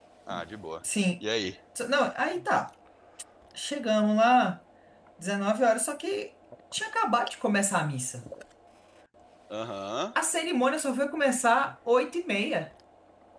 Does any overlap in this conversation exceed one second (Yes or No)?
No